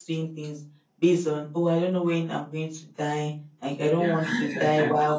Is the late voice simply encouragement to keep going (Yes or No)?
Yes